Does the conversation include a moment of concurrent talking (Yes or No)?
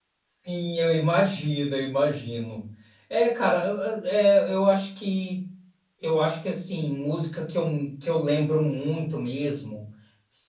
No